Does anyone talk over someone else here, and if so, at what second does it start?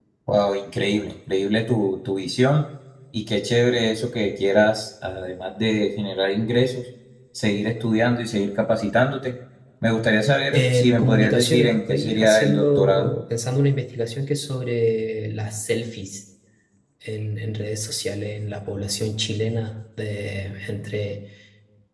11 s

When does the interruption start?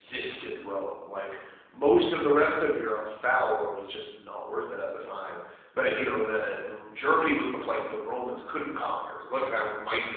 none

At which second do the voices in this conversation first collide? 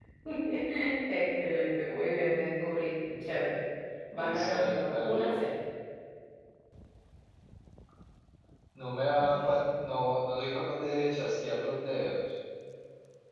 4 s

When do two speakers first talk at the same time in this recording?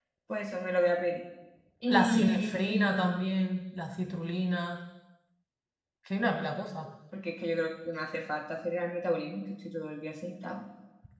2 s

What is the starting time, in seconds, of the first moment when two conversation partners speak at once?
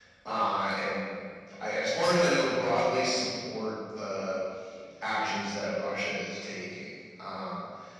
none

